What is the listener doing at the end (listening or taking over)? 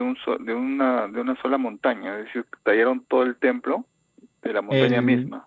taking over